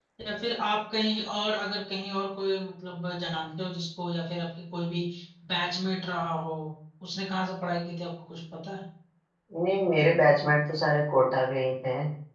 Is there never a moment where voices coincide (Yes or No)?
Yes